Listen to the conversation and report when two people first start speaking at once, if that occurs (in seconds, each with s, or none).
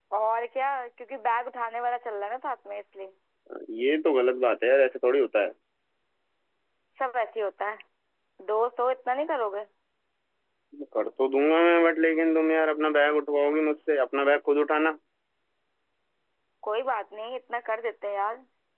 none